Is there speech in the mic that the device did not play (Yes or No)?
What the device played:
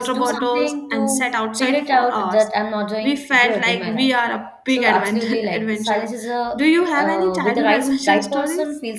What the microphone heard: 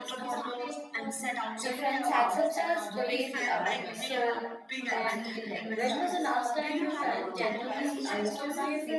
Yes